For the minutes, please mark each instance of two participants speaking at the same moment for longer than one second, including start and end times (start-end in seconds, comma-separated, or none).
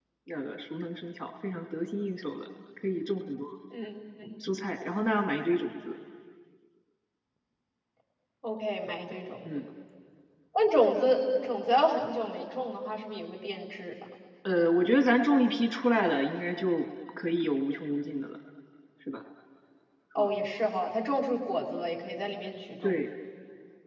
none